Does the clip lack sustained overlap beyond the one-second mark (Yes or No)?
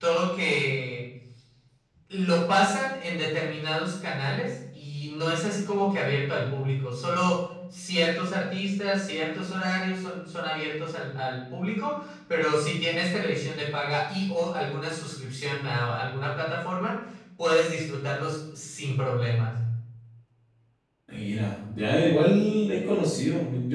Yes